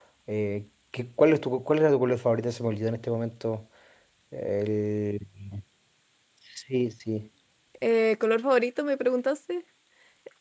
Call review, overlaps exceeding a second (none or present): none